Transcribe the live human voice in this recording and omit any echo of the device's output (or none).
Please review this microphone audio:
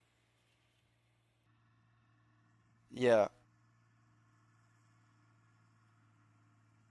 Yeah